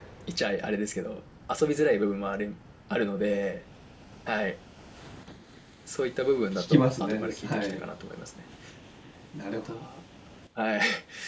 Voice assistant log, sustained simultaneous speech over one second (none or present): present